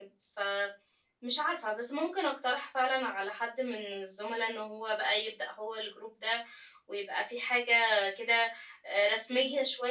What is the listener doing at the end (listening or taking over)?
listening